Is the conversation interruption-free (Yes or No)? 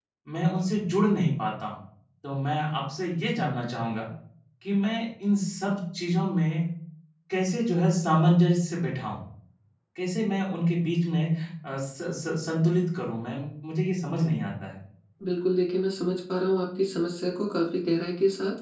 Yes